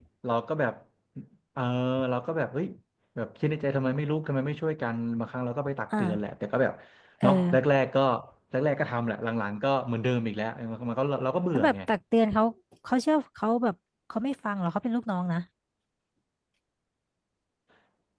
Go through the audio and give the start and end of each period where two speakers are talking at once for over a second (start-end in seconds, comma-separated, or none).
none